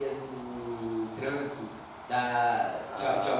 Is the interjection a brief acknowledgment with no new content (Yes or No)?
Yes